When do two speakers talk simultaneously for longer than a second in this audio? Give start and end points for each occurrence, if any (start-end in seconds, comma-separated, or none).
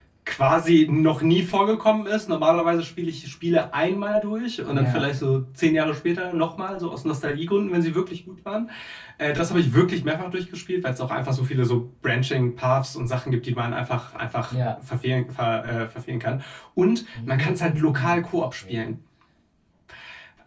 17.1-18.9